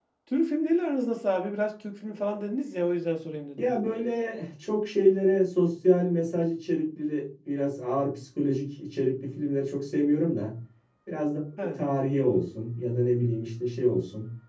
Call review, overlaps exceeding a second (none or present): none